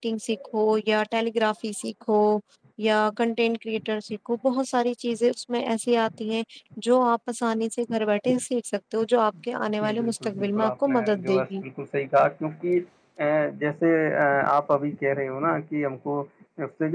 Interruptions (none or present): present